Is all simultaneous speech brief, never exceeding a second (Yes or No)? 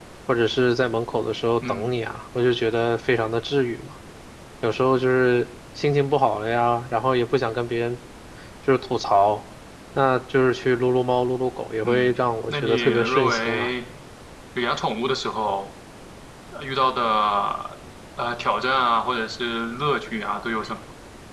No